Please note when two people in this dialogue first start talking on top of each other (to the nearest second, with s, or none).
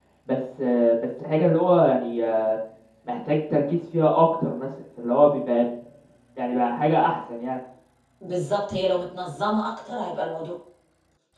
none